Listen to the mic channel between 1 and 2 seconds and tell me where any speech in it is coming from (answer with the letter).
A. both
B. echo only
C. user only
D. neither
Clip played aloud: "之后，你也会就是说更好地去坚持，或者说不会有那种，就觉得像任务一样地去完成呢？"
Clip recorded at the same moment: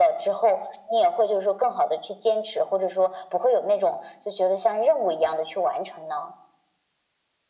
B